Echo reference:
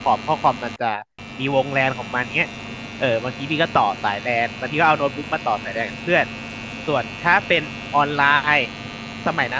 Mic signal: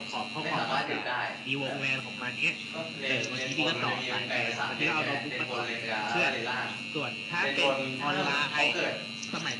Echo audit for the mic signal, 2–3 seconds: both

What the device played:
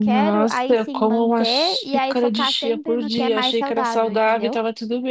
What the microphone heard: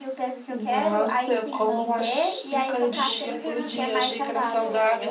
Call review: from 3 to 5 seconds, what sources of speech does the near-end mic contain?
both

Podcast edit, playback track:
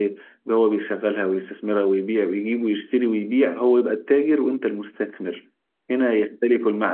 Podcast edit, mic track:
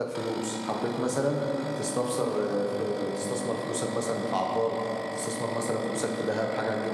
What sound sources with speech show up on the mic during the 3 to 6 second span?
user only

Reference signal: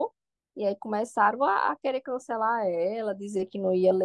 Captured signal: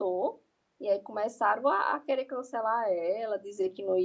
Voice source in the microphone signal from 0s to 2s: echo only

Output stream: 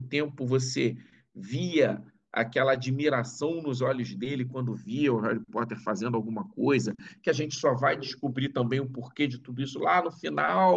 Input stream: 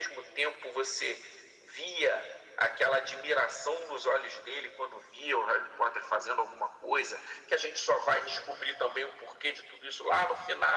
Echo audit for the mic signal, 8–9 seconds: echo only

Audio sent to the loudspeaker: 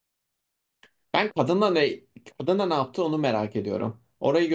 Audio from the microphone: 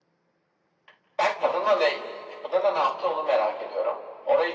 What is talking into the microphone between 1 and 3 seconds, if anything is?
echo only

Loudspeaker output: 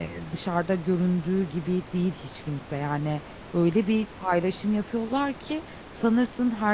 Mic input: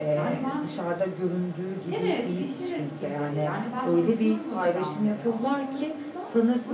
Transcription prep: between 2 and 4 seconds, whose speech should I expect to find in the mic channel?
both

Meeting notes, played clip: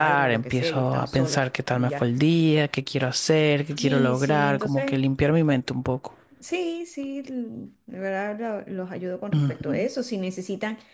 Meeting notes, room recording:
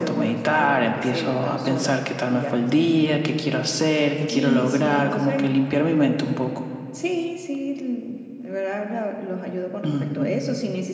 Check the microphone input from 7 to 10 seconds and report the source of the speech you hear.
echo only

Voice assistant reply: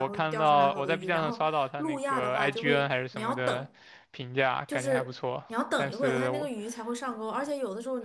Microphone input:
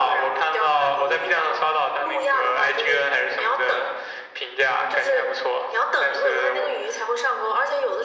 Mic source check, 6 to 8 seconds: echo only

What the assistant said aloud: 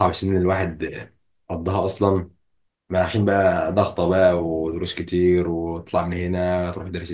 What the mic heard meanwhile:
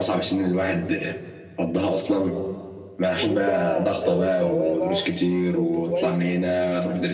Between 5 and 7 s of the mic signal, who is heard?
both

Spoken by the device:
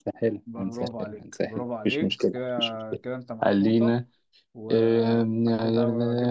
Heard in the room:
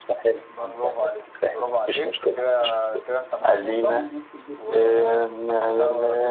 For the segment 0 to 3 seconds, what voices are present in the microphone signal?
echo only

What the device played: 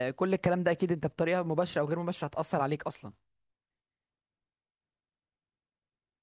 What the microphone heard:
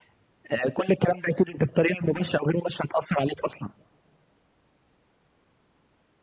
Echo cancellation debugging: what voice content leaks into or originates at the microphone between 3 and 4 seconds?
echo only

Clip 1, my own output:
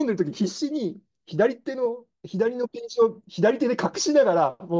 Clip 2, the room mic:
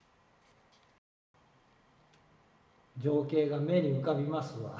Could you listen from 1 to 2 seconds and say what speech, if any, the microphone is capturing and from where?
neither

